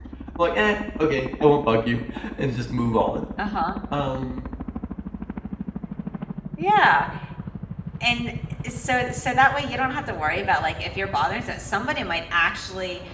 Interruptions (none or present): none